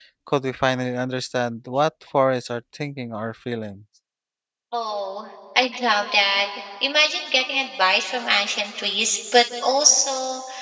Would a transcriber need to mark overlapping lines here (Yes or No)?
No